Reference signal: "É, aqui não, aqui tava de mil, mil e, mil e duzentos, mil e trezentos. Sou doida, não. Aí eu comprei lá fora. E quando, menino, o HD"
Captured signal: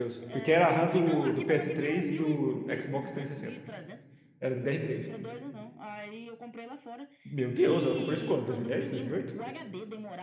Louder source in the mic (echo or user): user